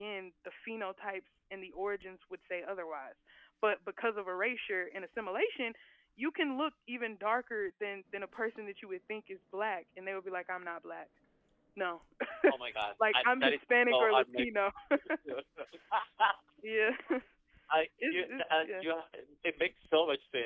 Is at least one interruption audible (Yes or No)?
Yes